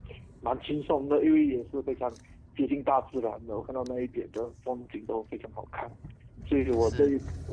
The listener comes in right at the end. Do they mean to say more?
No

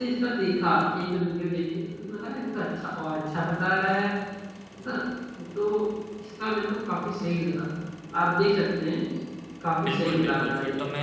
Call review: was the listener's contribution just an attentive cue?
No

